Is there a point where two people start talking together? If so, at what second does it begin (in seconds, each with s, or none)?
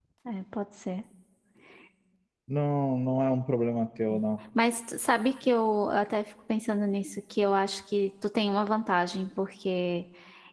none